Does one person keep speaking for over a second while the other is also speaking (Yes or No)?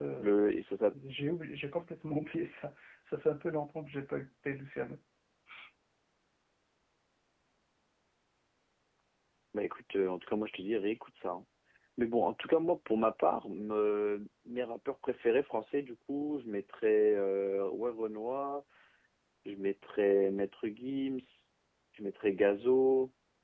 No